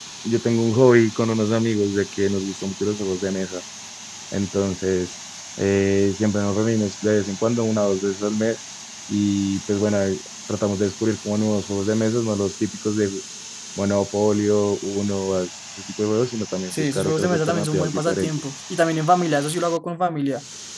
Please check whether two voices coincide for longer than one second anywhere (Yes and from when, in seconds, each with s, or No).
Yes, from 16.7 s